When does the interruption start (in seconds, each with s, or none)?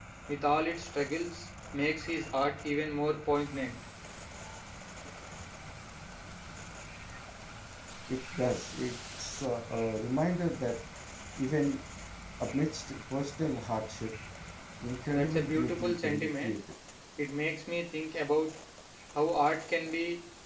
15.1 s